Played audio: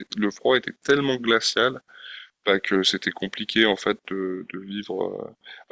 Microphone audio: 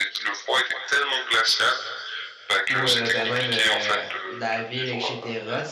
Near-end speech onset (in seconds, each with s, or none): 2.7 s